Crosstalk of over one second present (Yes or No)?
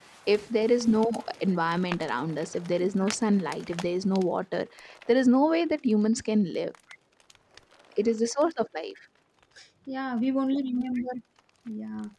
No